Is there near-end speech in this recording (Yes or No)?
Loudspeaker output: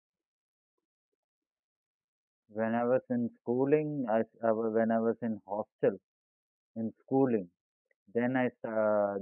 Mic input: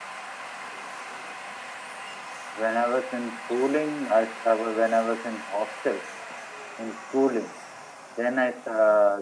No